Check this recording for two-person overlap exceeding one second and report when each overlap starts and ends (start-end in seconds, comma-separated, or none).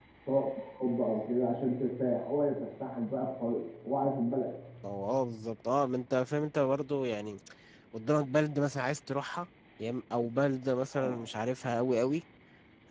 none